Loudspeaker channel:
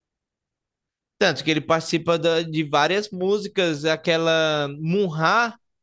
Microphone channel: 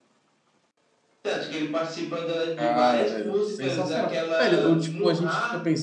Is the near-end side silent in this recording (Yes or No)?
No